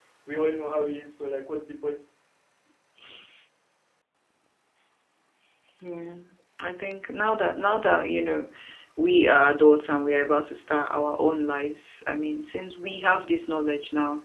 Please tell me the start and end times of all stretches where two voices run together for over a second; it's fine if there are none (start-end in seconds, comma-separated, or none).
none